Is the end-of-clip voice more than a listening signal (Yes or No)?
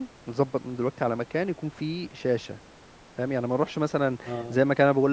No